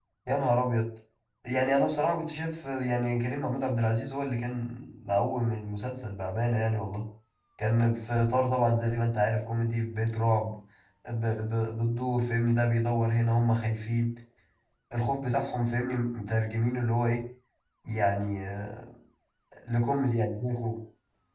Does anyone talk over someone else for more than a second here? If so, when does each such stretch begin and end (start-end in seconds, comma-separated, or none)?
none